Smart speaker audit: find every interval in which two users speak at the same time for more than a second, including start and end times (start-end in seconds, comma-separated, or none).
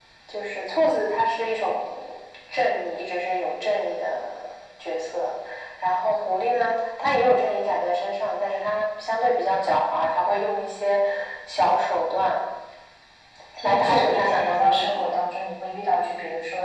13.6-15.1